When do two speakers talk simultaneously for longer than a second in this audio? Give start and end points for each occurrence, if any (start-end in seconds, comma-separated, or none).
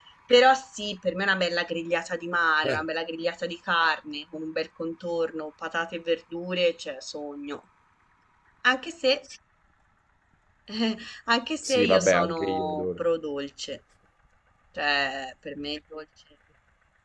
11.6-13.0